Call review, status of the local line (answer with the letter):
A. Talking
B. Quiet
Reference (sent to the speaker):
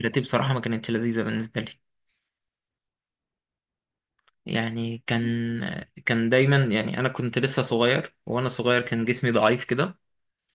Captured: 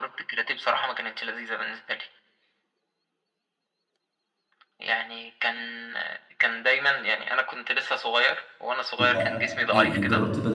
A